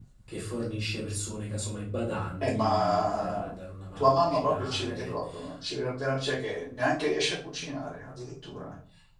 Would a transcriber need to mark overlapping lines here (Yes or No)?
Yes